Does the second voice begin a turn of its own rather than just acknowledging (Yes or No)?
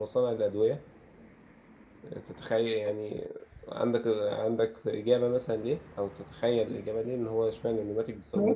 Yes